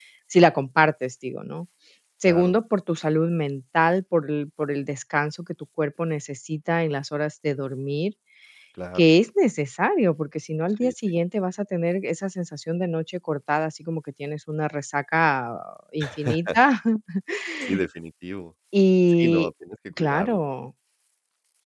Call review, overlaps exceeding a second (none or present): none